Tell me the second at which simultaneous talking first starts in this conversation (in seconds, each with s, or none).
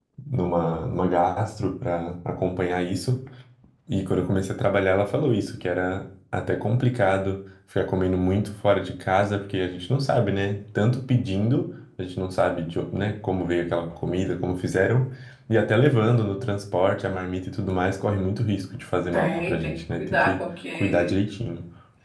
19.1 s